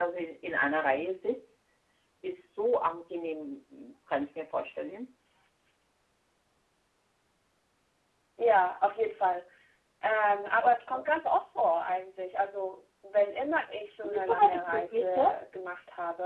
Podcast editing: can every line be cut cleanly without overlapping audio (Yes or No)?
No